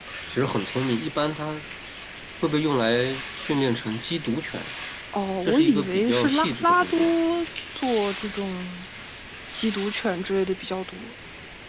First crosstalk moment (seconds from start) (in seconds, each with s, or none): 5.4 s